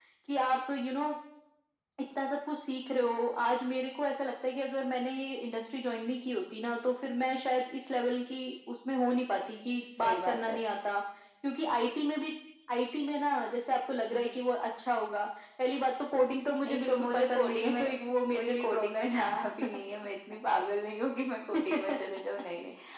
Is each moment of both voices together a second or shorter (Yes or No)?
No